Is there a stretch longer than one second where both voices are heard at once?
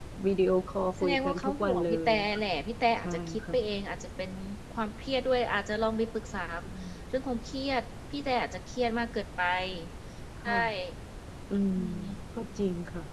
Yes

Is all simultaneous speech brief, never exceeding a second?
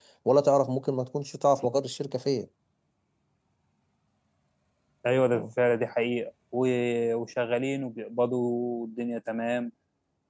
Yes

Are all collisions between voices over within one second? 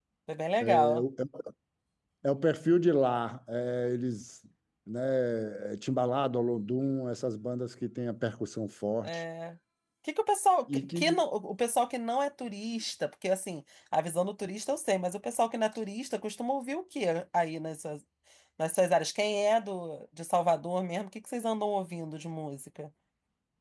Yes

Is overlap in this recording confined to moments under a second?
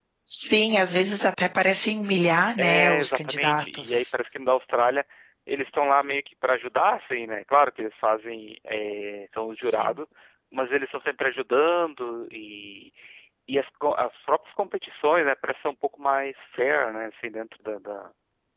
No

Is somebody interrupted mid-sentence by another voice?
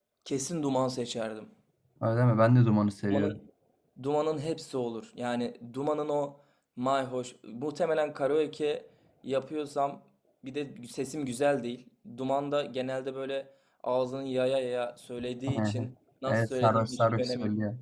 Yes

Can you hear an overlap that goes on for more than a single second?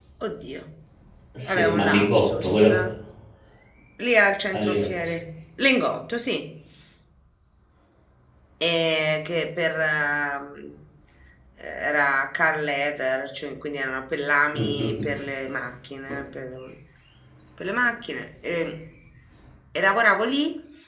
Yes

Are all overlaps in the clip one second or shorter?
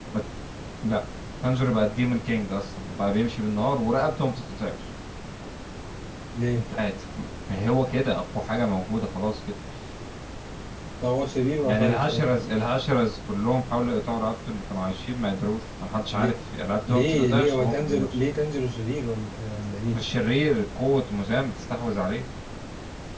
No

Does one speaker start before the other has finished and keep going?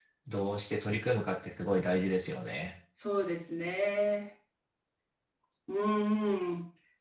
No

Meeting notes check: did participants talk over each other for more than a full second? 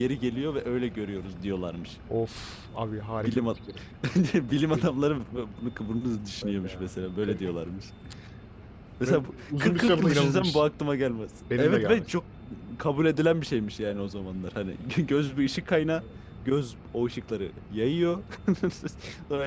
Yes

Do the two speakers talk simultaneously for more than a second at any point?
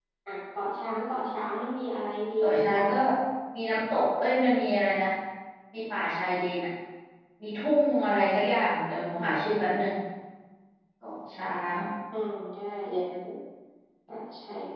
No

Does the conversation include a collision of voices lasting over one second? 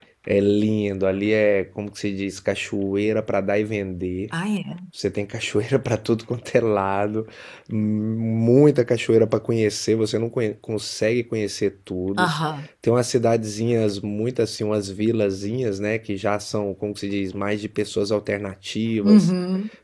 No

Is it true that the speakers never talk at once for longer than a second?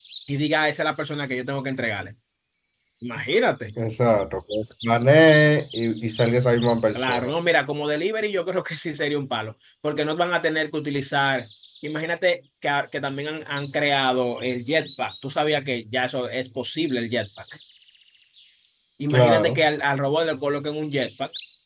Yes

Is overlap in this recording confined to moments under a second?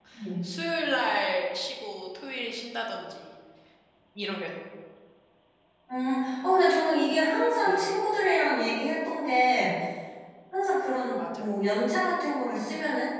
Yes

